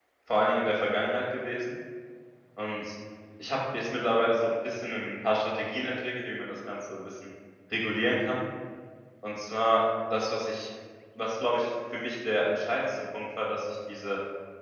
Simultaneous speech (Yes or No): No